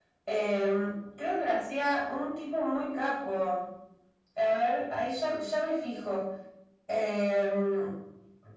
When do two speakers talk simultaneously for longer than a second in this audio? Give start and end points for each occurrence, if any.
none

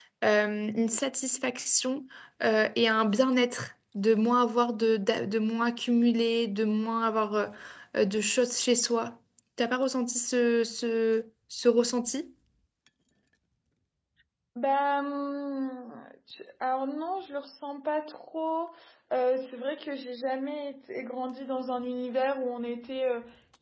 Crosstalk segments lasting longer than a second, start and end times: none

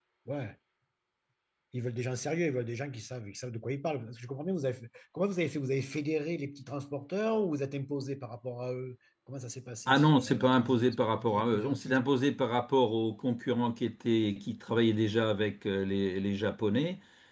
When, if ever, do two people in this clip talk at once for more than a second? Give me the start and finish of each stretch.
9.9-11.9

